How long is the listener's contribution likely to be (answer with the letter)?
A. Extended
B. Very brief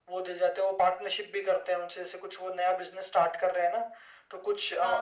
B